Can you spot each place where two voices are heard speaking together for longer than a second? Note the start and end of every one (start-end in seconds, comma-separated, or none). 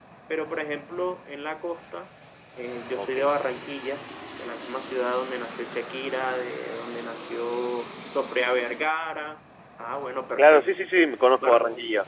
none